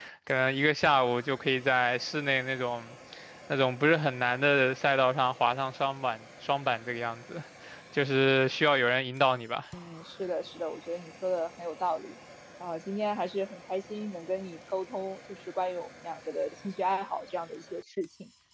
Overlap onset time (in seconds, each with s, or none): none